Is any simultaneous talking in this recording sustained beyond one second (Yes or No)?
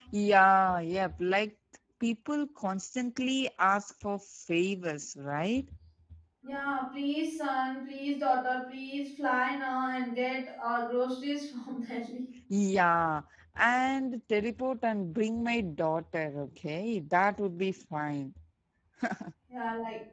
No